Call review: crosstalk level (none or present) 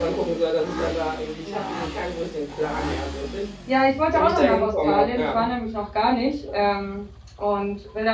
present